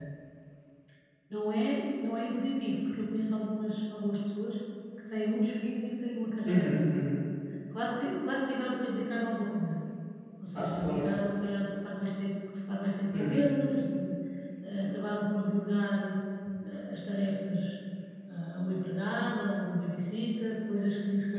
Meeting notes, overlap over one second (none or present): none